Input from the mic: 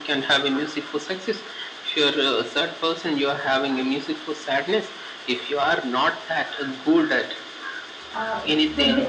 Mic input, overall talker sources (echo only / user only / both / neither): both